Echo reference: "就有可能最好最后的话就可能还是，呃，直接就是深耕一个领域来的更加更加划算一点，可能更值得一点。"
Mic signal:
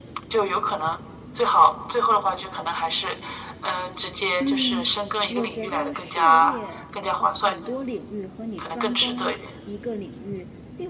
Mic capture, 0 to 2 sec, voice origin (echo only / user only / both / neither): echo only